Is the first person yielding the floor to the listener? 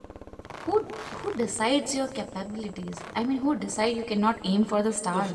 Yes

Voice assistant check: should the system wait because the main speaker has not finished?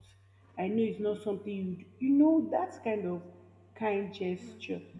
No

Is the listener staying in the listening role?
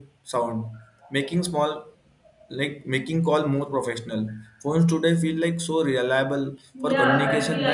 No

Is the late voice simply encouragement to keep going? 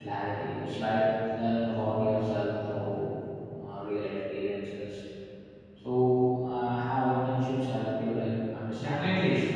No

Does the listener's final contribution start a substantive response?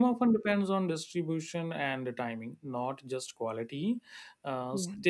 No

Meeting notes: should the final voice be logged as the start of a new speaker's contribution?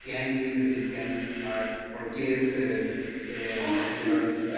No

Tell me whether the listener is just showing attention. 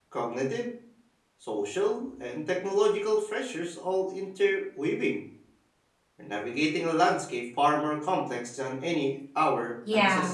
No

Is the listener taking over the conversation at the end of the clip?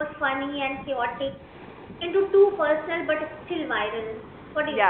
Yes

